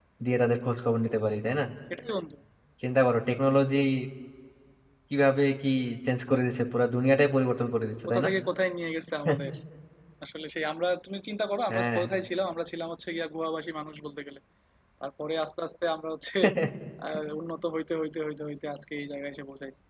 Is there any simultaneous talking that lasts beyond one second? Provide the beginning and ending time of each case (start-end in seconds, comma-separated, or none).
none